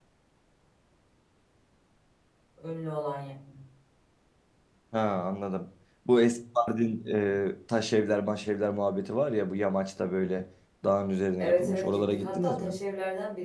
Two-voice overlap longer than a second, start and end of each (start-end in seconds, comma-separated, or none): 11.4-12.8